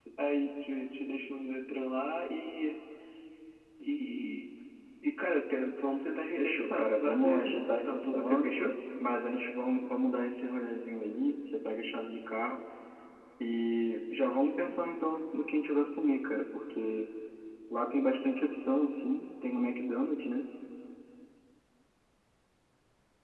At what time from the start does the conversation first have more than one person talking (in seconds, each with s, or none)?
6.4 s